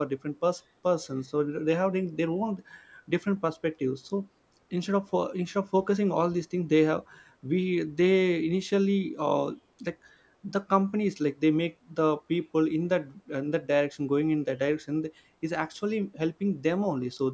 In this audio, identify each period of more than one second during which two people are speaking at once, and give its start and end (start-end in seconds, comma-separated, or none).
none